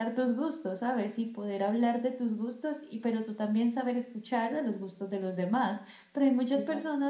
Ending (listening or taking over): listening